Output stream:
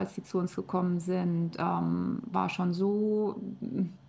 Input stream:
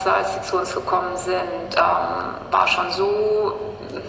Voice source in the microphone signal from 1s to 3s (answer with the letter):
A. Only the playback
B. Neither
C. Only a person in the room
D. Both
A